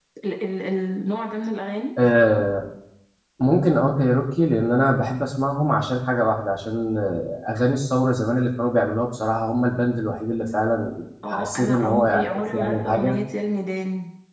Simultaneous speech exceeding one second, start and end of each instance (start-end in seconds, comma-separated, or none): 11.3-13.2